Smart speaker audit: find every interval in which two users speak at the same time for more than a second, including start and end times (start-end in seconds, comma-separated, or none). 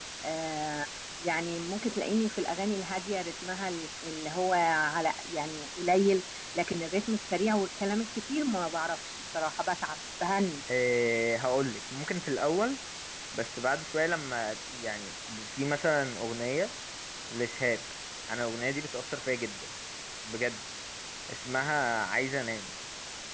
none